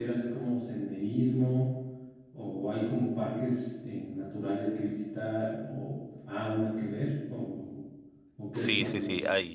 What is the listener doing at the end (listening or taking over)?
taking over